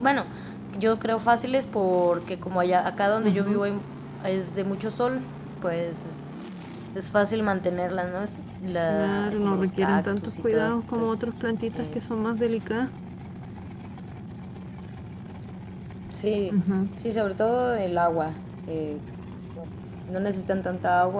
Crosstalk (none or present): present